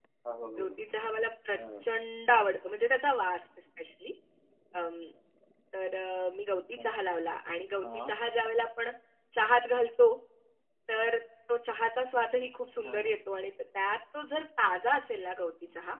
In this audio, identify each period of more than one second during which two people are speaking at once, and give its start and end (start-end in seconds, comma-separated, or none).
none